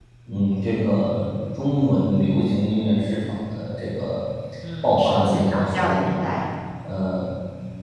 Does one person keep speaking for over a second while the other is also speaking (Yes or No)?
Yes